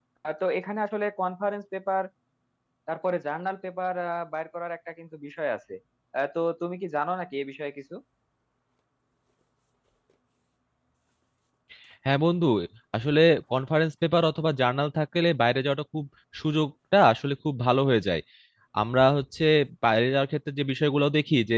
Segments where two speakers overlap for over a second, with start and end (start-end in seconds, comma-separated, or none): none